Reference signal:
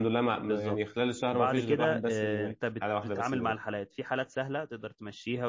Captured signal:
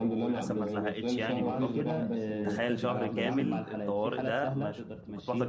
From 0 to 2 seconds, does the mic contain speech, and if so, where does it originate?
both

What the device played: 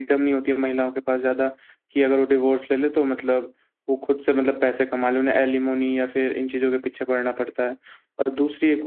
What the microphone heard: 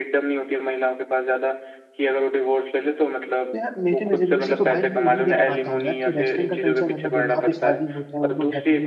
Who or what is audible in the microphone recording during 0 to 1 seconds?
echo only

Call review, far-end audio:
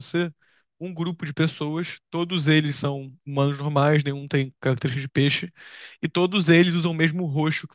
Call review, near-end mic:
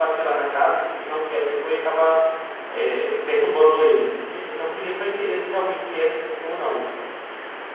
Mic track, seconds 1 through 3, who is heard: user only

